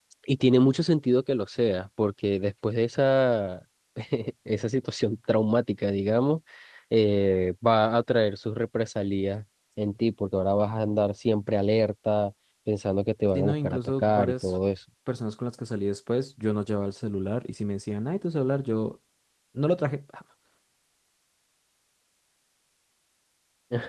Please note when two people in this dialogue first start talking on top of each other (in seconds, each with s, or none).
13.3 s